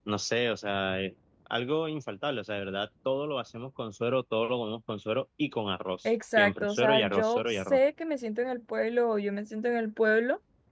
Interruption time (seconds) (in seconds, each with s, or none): 6.0 s